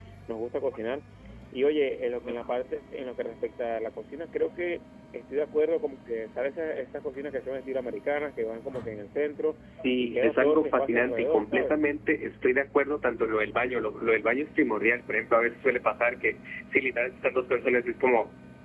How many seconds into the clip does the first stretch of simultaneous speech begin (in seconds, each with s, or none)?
10.0 s